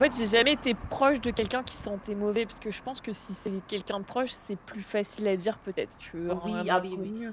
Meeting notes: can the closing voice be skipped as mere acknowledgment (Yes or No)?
No